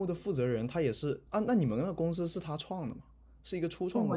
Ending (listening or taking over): taking over